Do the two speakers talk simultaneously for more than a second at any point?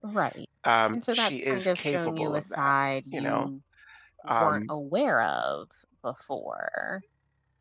Yes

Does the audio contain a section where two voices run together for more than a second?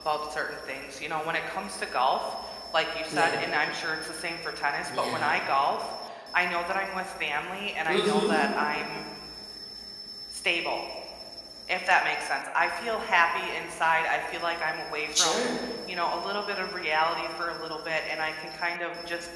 No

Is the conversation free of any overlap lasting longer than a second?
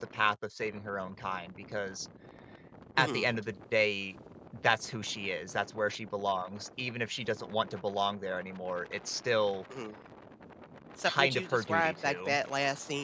No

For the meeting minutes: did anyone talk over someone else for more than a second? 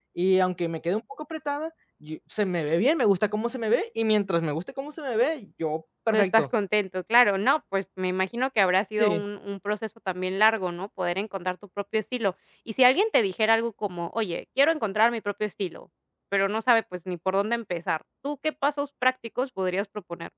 No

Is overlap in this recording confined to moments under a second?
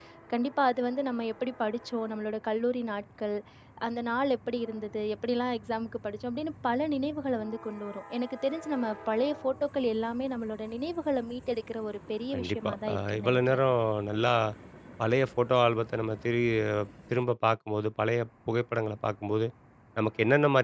No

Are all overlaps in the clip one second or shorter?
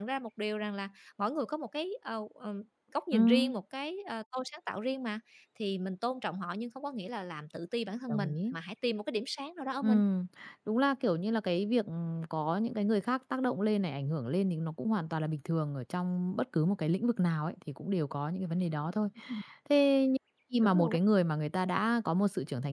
Yes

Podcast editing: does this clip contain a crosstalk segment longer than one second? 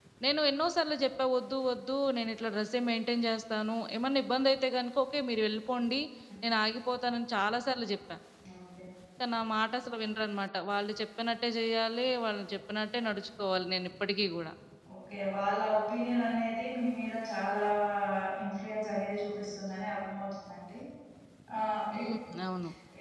No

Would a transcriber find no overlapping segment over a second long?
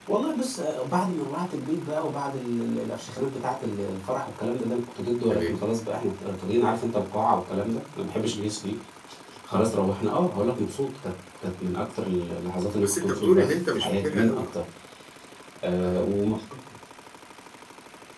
No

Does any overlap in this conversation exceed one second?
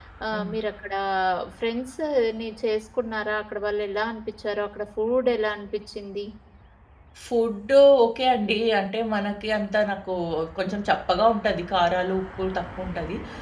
No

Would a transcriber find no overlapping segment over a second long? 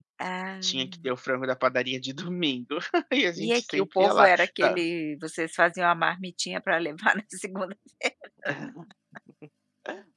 No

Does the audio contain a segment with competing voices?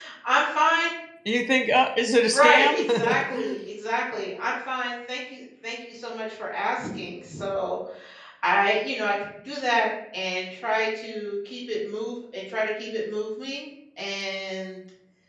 Yes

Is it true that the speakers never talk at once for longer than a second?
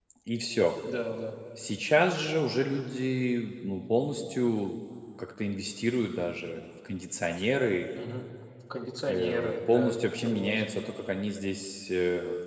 No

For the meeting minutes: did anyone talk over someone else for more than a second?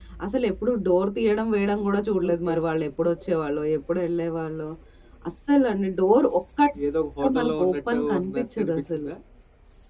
Yes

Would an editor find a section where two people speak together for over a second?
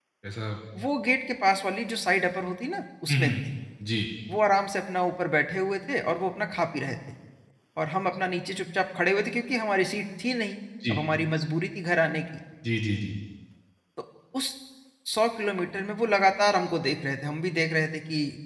No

